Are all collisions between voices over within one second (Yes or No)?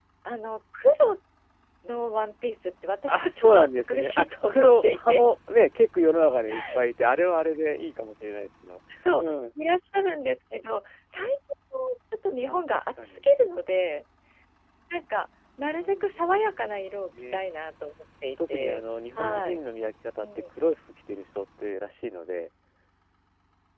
No